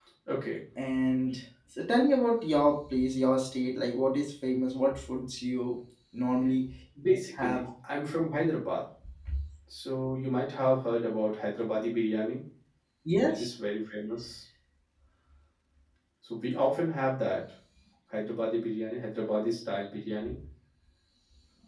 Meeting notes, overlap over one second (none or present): none